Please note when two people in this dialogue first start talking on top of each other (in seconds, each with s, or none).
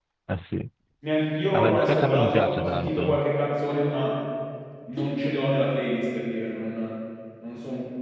1.5 s